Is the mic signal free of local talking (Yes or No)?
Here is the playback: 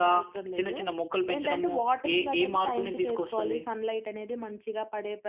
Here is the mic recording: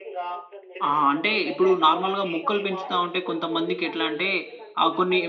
No